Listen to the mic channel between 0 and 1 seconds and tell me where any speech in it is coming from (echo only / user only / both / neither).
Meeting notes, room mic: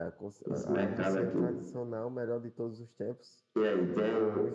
both